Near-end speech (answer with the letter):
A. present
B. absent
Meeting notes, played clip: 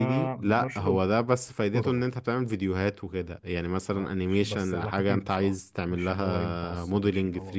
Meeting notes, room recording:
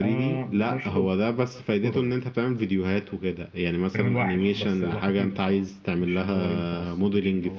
A